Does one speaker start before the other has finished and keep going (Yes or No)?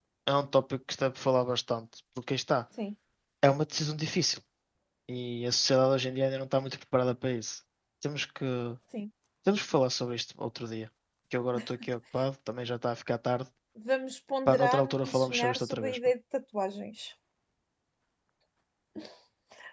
Yes